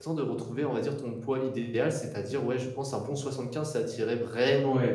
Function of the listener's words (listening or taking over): taking over